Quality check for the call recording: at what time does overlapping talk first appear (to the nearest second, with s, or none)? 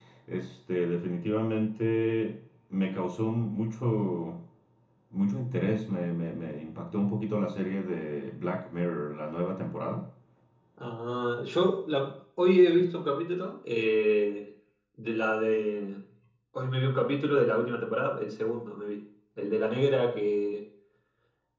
none